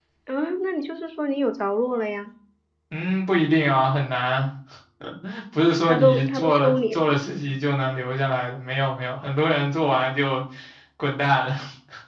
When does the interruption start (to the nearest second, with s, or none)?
6 s